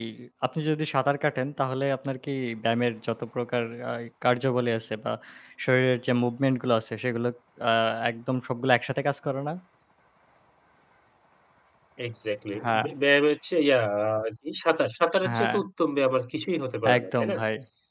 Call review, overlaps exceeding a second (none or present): none